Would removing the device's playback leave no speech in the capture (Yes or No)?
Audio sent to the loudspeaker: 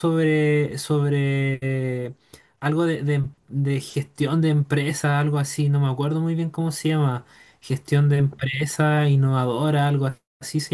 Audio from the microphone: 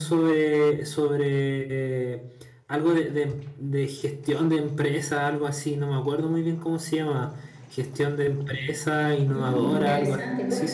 No